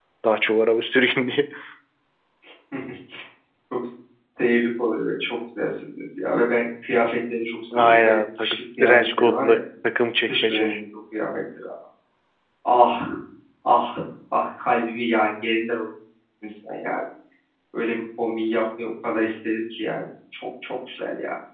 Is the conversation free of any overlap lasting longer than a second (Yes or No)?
No